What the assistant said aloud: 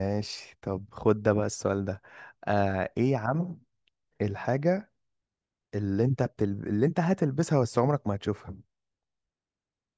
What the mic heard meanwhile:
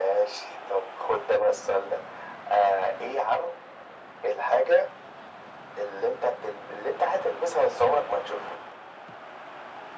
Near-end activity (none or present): none